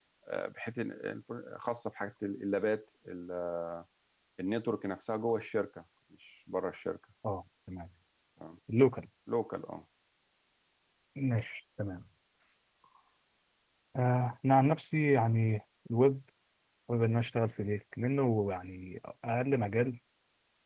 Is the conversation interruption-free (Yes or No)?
Yes